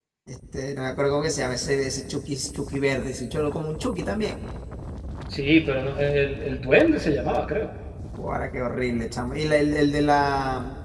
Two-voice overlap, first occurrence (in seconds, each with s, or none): none